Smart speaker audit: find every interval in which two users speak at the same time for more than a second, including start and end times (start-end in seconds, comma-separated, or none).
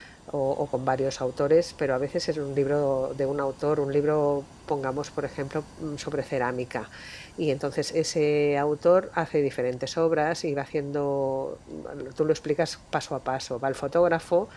none